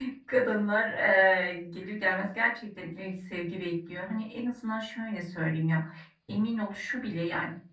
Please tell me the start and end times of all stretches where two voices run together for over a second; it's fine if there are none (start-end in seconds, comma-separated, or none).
none